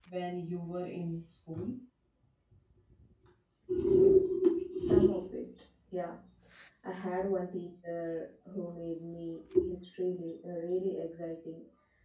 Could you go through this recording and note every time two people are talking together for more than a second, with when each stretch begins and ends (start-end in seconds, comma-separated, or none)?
none